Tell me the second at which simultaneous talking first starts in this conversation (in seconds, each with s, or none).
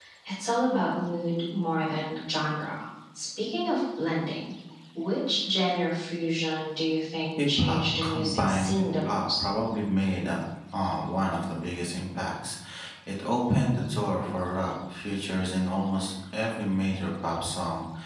7.4 s